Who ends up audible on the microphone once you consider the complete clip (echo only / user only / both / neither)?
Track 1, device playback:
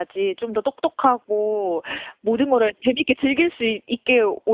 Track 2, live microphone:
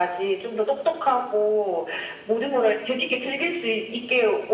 echo only